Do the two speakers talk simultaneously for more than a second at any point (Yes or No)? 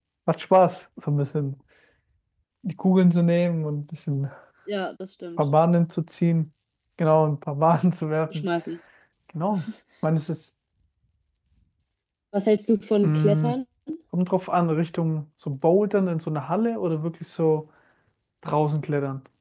No